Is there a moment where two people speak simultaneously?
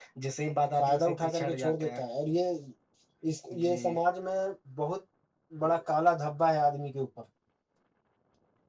Yes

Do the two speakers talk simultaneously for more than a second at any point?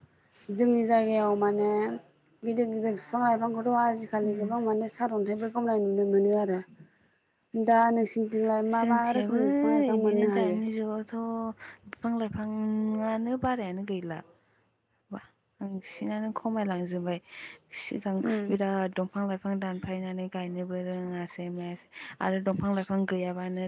Yes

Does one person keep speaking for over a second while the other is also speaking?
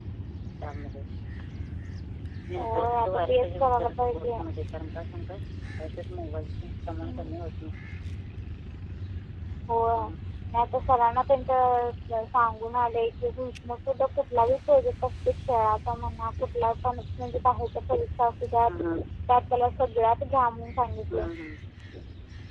Yes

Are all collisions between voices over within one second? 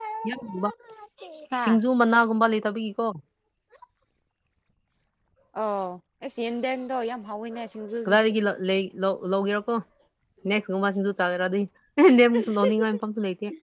Yes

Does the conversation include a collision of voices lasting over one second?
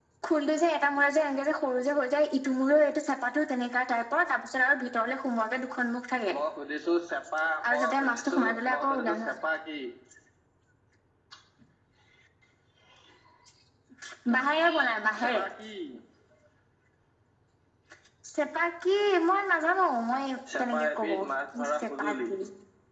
Yes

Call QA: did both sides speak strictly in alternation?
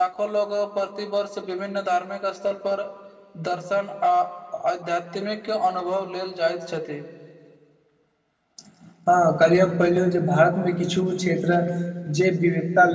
Yes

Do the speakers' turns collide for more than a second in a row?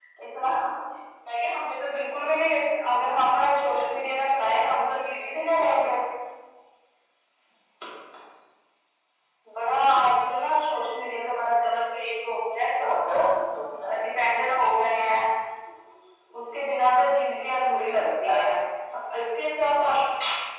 No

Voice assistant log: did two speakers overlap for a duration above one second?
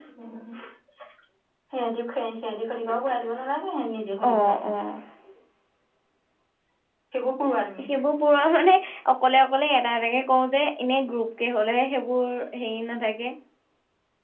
No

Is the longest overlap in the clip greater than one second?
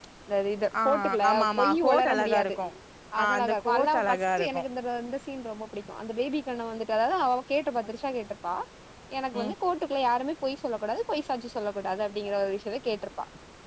Yes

